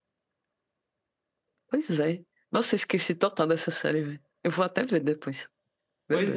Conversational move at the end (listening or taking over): taking over